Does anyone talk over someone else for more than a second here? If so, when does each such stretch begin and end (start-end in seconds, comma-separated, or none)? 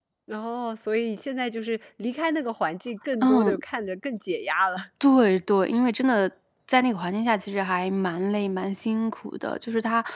none